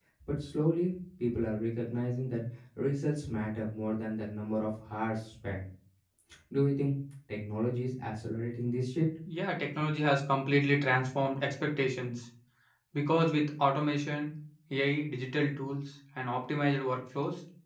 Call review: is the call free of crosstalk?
Yes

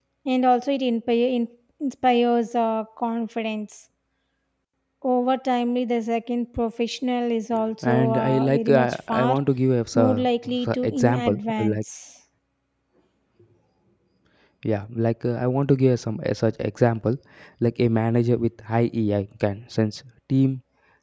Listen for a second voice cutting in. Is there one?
Yes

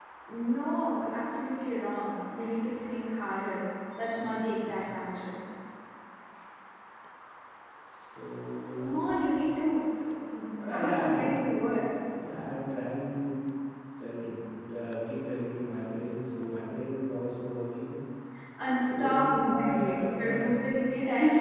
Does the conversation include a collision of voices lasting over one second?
Yes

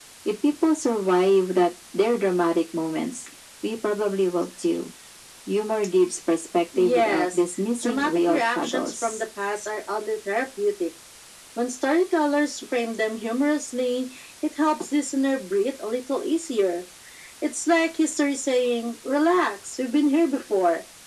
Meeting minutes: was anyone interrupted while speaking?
Yes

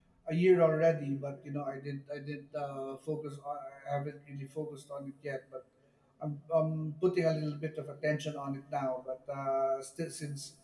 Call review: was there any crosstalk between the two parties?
No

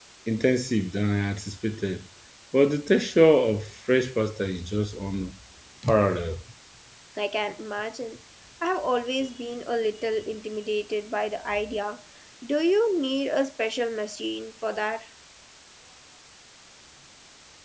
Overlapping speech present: No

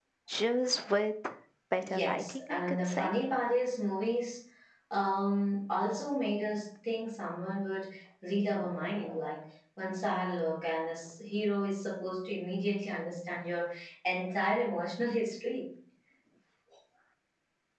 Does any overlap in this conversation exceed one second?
Yes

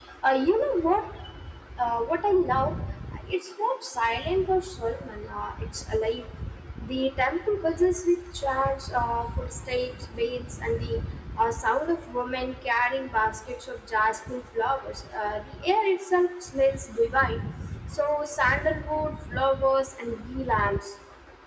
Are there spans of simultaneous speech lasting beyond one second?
No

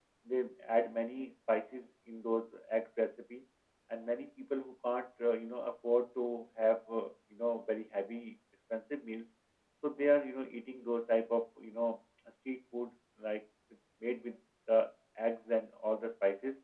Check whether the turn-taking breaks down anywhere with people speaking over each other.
No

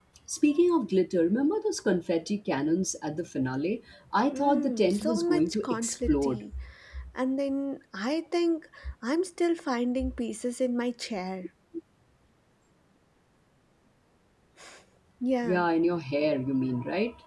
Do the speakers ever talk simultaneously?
Yes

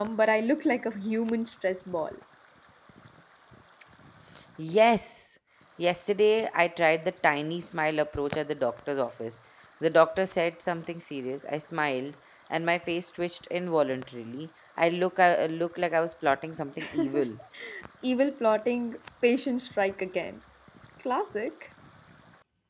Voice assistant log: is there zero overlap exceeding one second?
Yes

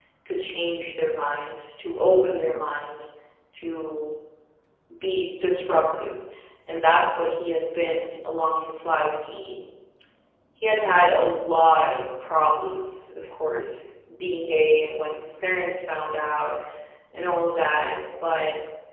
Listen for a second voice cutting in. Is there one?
No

